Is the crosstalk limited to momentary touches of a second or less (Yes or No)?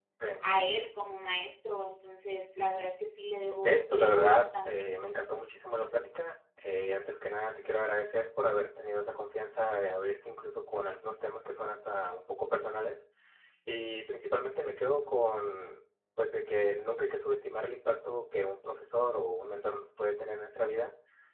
No